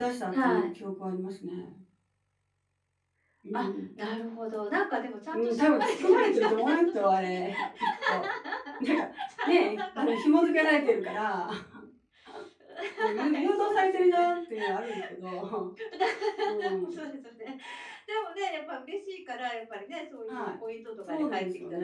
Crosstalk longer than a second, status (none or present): present